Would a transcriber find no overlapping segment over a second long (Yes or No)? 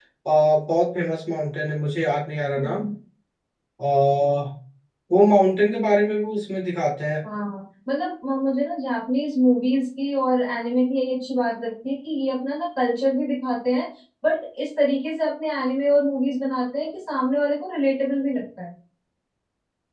Yes